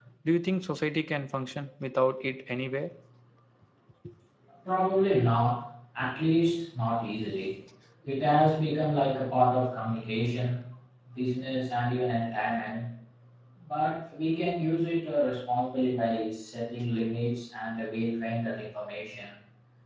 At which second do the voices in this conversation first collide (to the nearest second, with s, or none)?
none